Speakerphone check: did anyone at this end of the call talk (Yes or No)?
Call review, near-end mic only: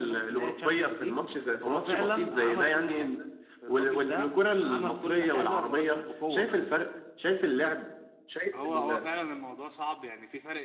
Yes